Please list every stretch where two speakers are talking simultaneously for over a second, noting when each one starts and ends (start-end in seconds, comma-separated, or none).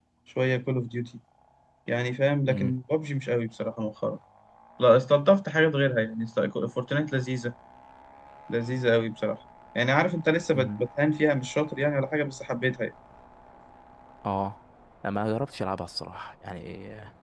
none